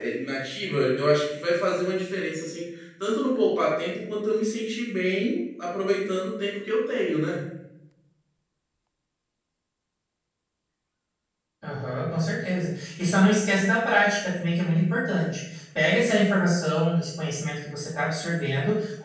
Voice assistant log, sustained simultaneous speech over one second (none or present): none